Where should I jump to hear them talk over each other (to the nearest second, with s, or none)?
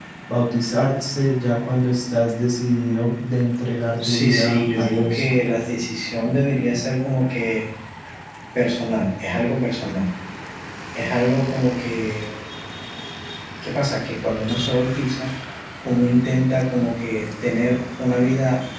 4 s